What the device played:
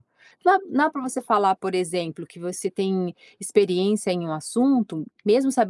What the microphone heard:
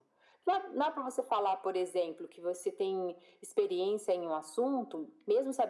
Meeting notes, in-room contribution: none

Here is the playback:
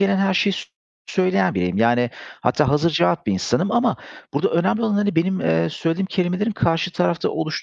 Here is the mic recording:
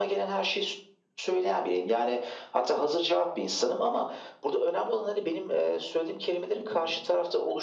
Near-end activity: present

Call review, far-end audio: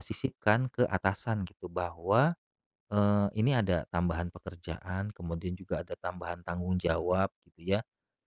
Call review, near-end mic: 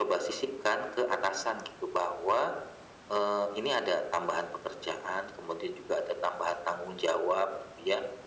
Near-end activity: none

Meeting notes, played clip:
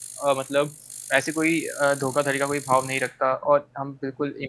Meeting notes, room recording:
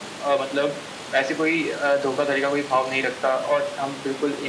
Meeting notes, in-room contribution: none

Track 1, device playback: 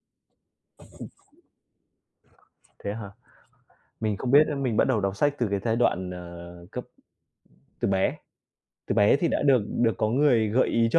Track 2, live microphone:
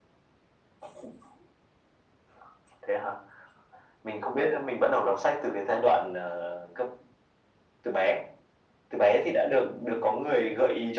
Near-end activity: none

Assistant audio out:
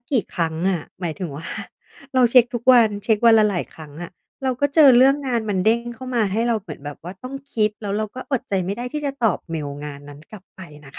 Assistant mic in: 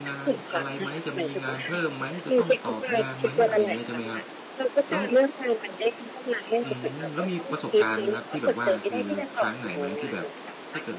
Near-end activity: present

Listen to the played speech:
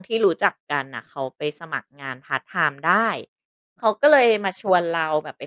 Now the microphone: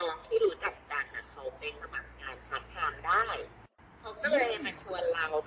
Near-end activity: present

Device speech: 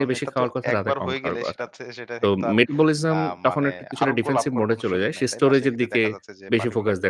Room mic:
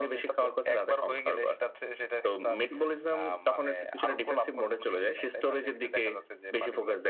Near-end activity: none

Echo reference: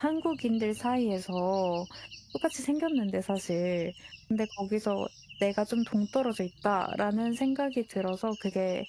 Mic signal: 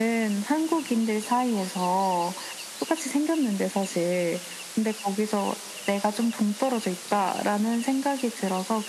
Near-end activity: none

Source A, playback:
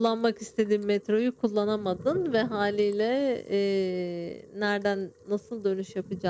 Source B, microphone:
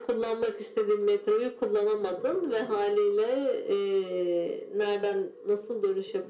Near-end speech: none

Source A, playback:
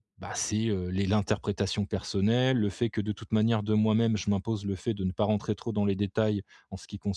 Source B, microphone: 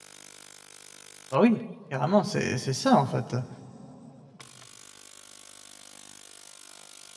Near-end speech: present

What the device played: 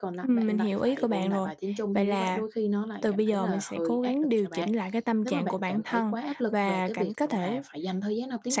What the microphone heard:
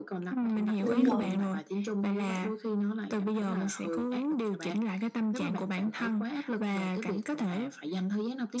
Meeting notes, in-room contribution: present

